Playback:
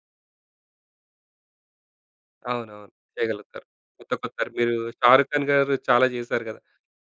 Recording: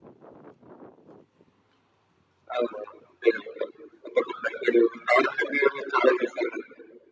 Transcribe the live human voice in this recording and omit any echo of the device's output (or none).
none